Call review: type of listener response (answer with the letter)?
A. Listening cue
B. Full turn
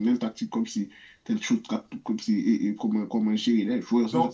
B